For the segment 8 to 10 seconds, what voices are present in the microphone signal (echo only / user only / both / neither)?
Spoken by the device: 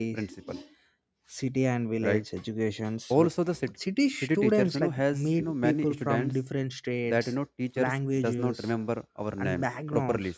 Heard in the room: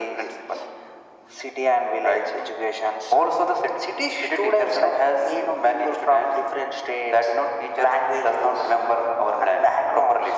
echo only